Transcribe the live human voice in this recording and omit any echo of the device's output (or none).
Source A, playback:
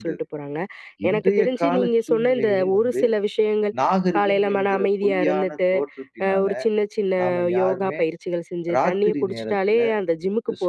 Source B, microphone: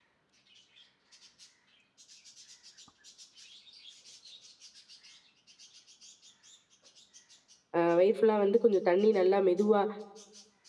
அ வயிறு ஃபுல்லா வந்து கொஞ்சம் தண்ணி நல்லா மெதுவா